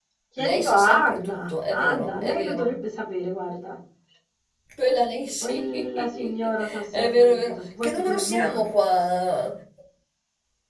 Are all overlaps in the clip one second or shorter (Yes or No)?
No